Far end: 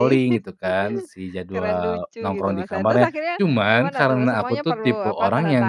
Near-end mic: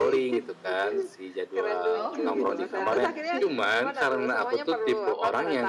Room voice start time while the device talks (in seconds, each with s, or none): 1.9 s